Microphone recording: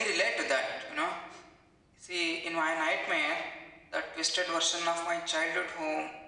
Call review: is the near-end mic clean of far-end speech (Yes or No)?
No